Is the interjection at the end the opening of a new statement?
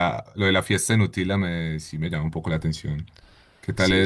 No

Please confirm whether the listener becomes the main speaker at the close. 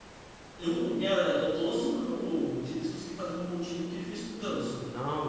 Yes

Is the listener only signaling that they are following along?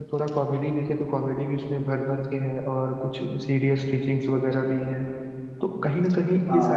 Yes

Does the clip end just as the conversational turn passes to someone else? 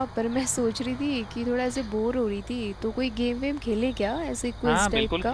Yes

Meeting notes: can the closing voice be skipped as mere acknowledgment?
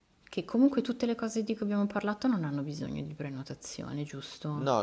No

